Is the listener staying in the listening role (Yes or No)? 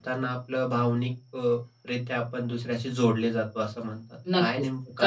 No